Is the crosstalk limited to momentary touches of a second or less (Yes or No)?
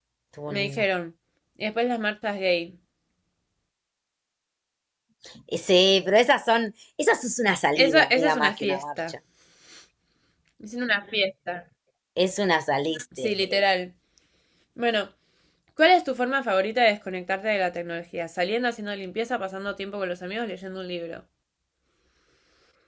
No